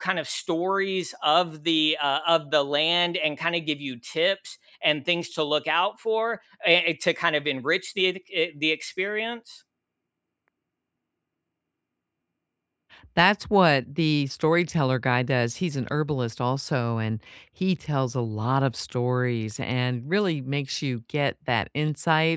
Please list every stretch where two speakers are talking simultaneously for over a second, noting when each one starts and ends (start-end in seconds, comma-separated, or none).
none